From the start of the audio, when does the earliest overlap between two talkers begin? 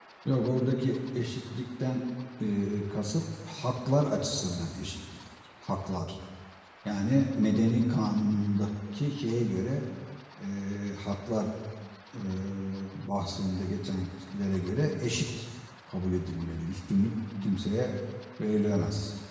none

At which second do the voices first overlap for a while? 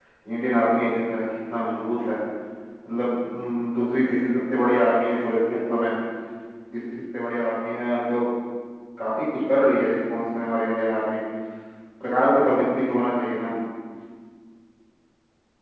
none

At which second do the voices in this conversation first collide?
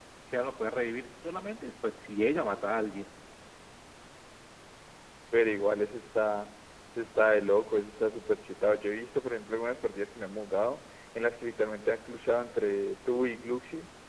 none

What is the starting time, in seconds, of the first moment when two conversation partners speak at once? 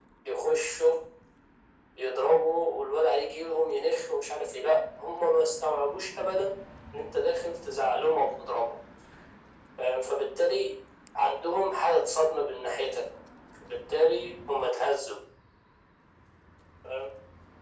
none

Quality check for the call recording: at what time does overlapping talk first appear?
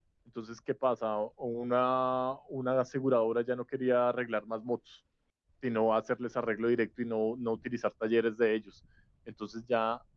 none

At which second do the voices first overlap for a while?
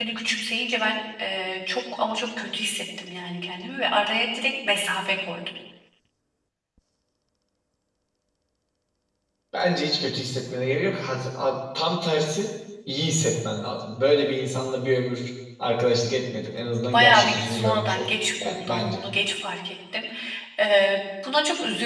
16.9 s

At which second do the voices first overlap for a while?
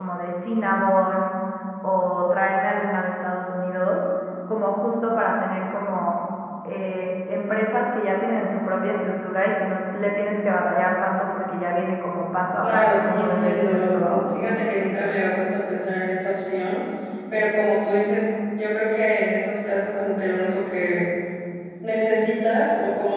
12.6 s

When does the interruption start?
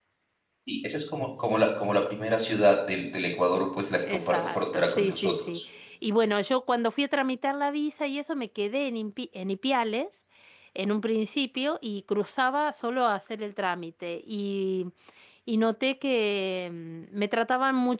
4.1 s

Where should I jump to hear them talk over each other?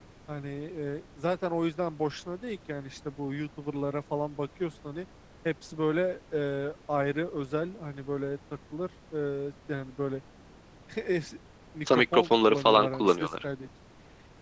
11.9 s

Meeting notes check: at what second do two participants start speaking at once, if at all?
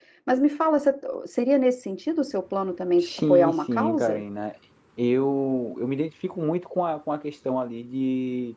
3.0 s

